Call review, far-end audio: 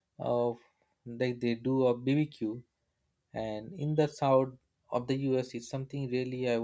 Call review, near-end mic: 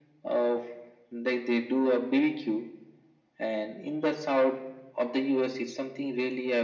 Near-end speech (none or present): none